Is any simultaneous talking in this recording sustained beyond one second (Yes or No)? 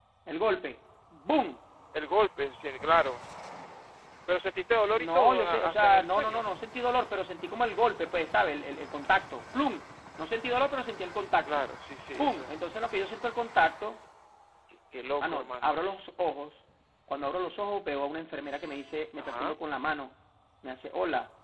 Yes